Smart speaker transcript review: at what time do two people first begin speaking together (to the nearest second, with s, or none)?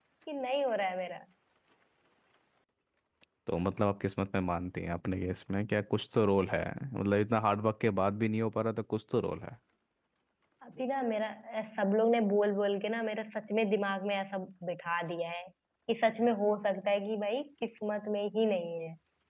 none